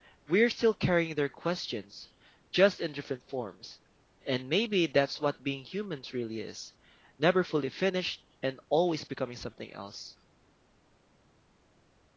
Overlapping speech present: No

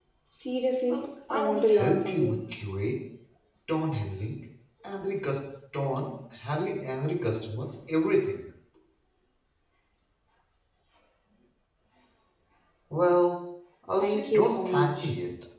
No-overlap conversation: No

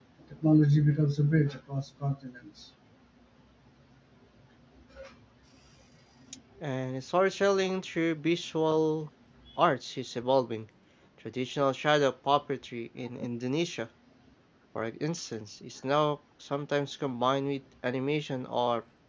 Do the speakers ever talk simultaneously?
No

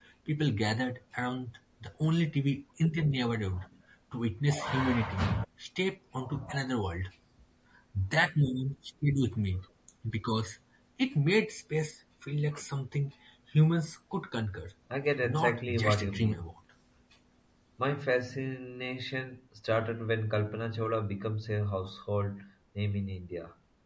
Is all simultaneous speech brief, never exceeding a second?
No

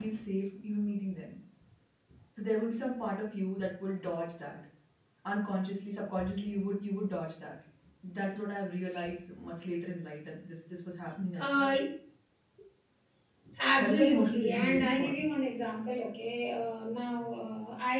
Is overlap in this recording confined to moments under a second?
No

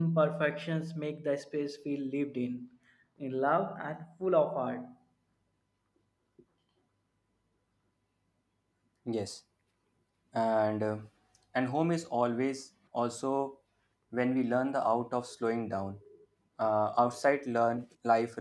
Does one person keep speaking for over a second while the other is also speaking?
No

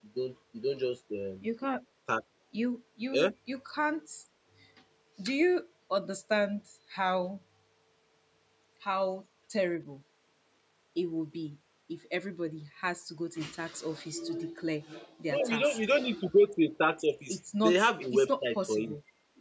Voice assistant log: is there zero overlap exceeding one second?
No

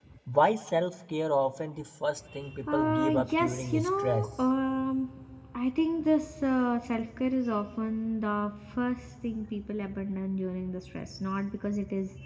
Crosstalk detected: Yes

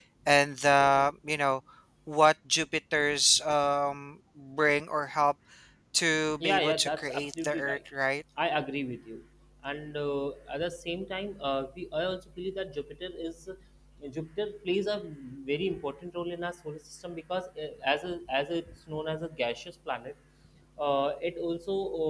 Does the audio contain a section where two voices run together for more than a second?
Yes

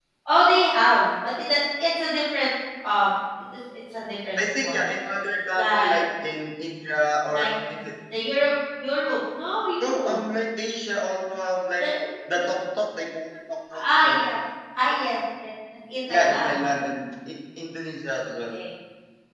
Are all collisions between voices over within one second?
Yes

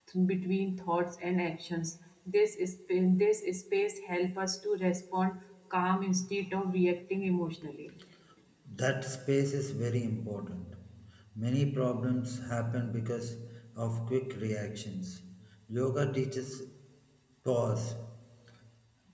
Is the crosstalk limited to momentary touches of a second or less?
Yes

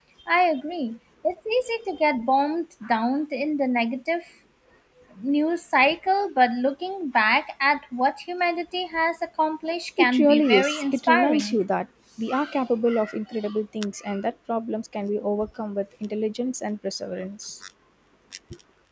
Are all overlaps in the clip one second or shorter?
No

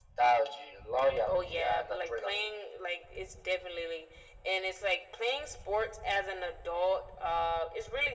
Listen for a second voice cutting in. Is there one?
Yes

